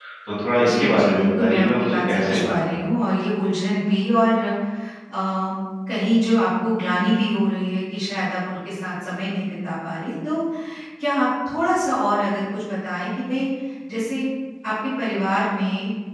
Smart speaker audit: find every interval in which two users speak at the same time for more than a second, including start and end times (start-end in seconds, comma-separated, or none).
0.6-2.9